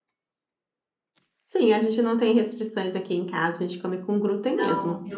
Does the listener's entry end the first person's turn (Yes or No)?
Yes